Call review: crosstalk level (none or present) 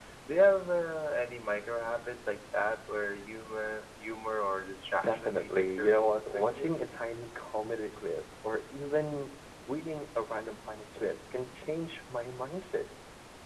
present